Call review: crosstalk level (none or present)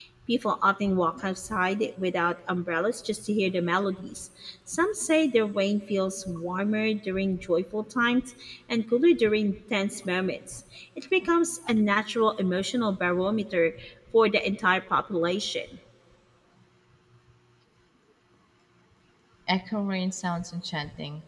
none